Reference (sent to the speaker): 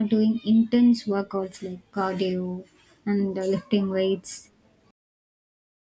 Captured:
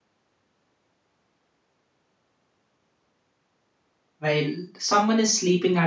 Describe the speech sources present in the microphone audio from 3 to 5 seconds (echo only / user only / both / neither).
user only